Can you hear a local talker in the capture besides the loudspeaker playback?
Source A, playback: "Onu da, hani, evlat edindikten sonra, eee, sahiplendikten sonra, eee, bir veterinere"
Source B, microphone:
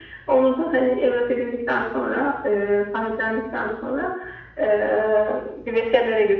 No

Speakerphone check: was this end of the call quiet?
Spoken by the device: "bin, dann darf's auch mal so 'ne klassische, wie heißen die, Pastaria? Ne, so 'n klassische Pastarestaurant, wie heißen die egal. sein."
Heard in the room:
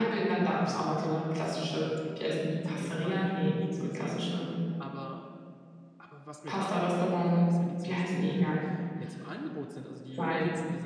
No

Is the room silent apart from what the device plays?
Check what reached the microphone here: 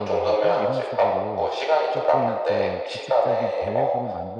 No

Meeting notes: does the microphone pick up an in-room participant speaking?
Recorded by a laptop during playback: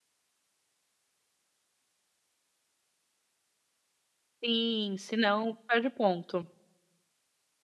Yes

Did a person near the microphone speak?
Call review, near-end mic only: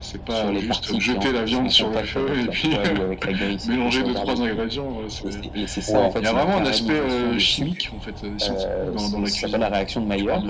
Yes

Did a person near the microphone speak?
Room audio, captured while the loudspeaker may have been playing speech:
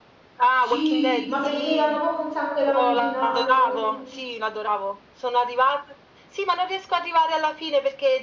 Yes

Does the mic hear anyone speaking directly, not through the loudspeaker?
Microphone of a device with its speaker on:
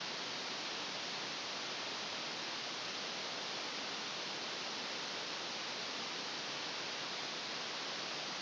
No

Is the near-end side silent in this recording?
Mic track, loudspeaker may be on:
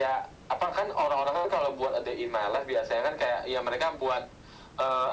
Yes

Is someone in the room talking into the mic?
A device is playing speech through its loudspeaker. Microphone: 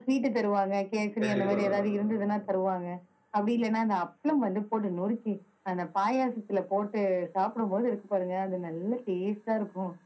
Yes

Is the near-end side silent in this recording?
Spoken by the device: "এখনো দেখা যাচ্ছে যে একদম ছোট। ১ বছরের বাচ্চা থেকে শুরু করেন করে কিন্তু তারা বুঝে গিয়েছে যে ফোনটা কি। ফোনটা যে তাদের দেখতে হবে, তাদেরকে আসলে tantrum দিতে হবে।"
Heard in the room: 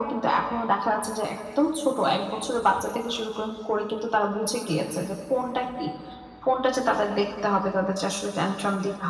Yes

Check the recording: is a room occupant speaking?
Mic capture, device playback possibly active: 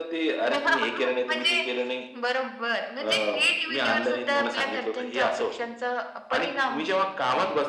No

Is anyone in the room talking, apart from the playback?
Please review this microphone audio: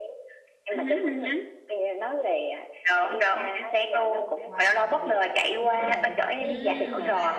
Yes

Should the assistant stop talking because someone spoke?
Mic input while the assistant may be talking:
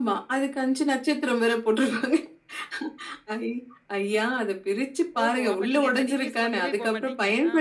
Yes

